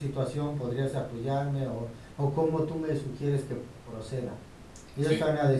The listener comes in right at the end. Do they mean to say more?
No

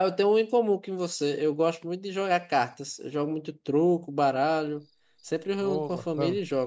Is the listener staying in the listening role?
Yes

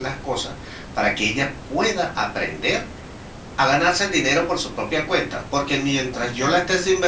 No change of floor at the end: Yes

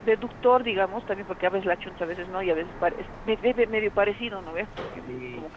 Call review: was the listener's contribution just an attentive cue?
Yes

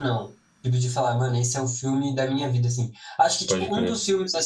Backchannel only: Yes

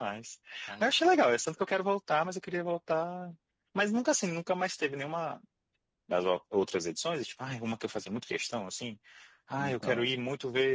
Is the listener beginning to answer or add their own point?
No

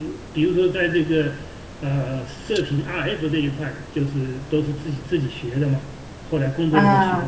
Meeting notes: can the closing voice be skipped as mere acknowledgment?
No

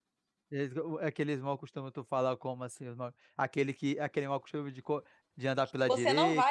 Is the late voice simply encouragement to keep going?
No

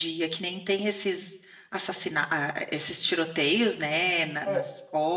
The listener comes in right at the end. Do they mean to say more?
No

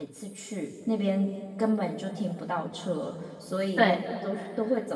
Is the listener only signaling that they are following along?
Yes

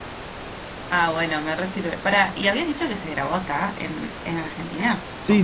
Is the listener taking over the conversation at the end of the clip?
Yes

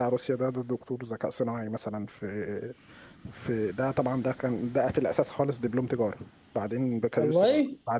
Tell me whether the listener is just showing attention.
Yes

